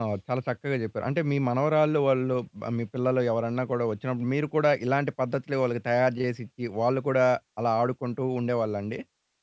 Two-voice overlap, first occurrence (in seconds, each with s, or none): none